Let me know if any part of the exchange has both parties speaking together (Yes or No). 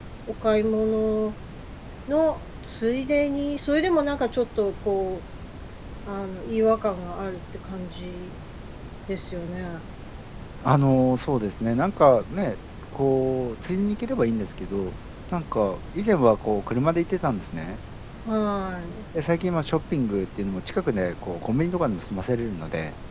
No